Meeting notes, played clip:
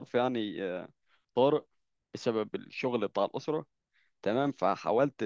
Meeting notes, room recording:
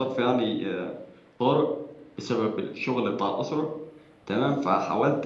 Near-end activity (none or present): none